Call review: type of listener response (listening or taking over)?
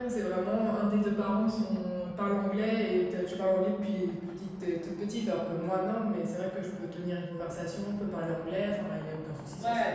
taking over